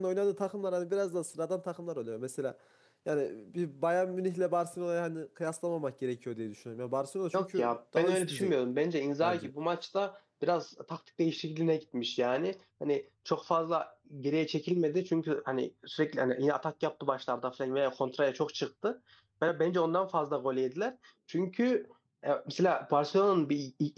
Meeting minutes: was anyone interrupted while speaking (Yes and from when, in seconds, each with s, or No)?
Yes, from 7.3 s